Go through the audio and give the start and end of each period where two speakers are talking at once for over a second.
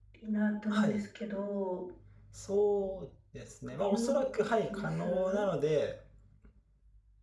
3.8-5.5

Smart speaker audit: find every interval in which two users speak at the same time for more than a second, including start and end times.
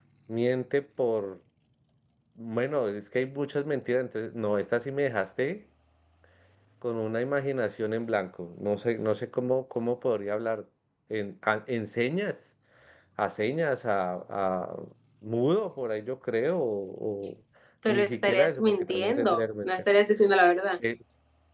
17.9-19.7

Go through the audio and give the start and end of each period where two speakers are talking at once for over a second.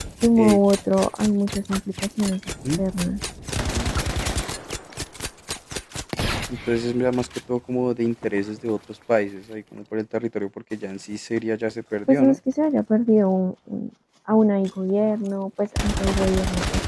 none

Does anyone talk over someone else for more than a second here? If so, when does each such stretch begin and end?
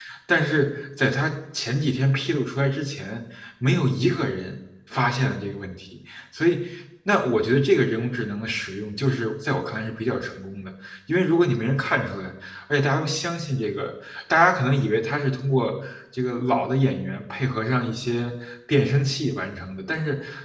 none

